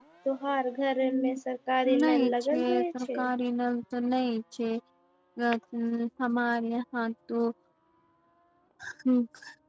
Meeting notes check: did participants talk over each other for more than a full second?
Yes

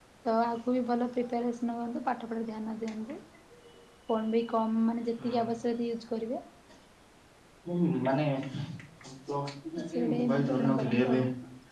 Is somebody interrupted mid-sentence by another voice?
Yes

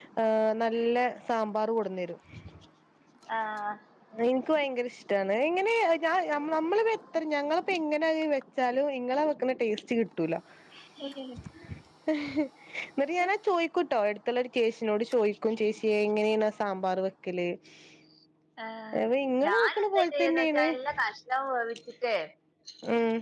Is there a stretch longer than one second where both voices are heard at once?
Yes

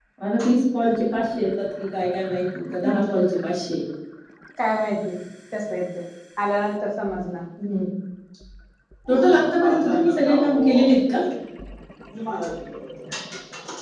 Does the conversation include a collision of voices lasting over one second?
Yes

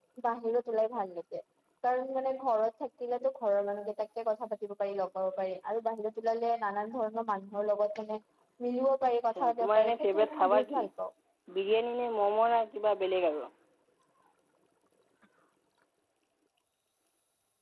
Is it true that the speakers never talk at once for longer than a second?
No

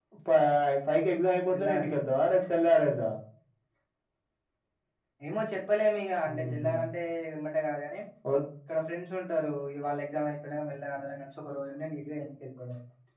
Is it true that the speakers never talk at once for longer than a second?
Yes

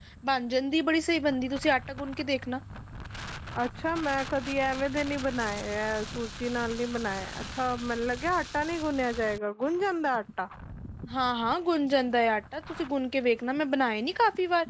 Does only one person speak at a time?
Yes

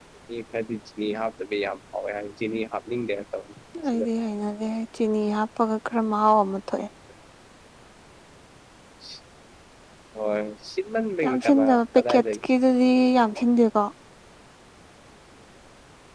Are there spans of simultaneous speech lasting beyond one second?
Yes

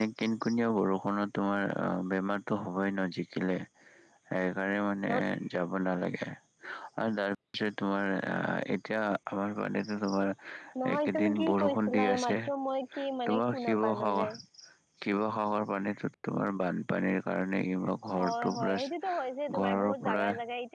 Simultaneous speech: Yes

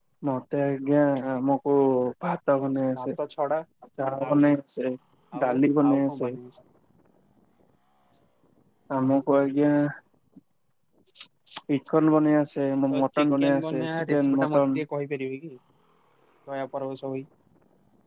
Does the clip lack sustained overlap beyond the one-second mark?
No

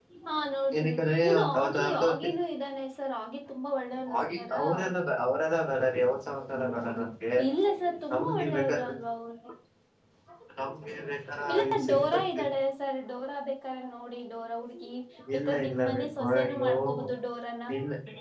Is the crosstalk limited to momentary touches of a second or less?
No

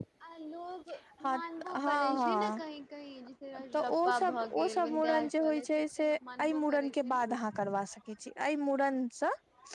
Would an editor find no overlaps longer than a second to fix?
No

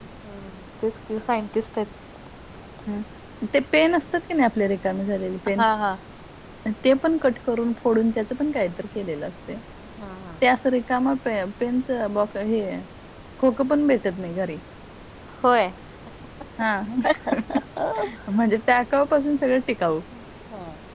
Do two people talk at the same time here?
No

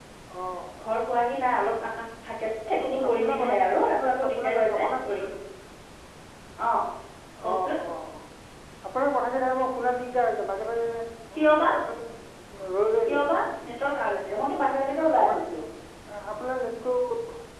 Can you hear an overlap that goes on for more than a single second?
Yes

